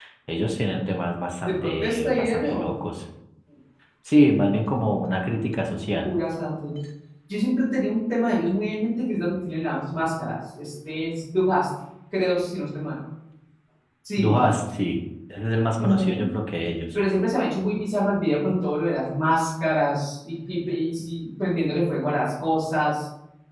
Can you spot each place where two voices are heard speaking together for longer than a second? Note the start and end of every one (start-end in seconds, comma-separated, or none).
1.4-2.7